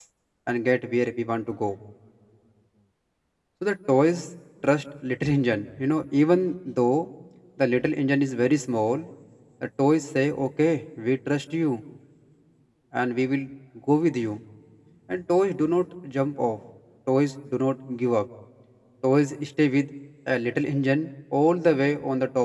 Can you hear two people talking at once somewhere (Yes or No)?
No